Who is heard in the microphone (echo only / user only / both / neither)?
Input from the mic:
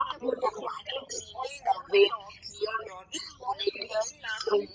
echo only